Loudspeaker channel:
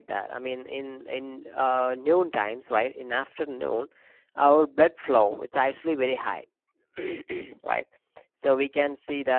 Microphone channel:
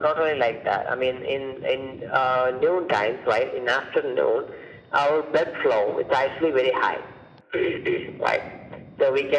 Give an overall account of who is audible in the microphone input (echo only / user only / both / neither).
echo only